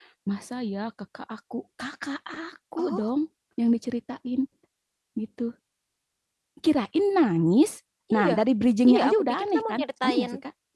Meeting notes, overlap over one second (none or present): present